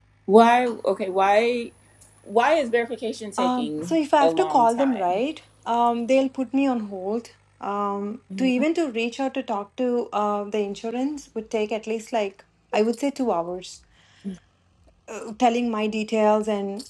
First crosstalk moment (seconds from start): 3.4 s

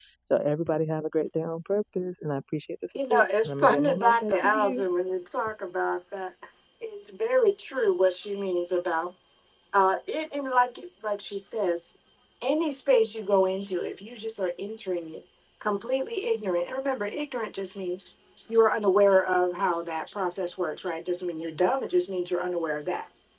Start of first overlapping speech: 3.0 s

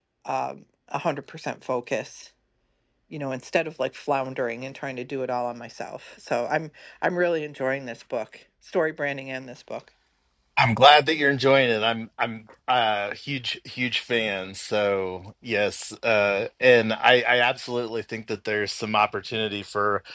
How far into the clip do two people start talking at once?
none

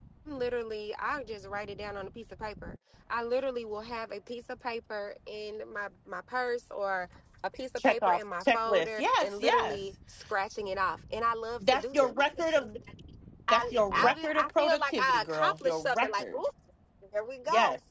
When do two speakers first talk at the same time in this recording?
7.9 s

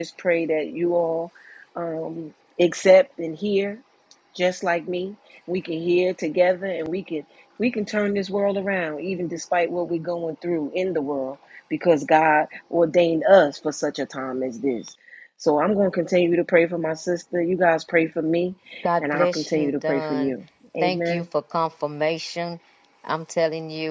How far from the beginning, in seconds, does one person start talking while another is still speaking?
19.0 s

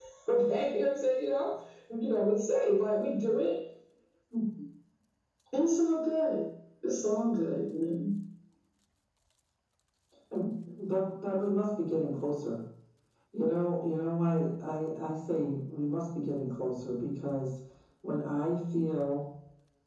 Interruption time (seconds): none

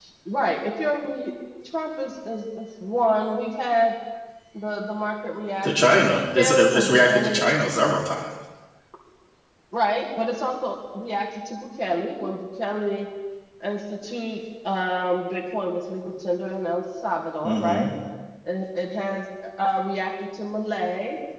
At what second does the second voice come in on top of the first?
5.6 s

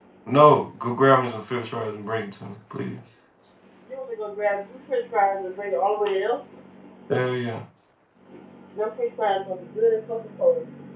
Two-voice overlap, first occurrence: none

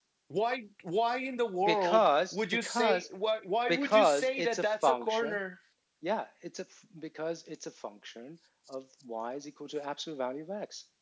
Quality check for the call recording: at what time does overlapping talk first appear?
1.7 s

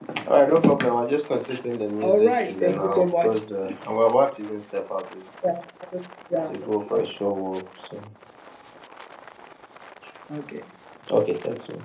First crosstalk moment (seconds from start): 2.0 s

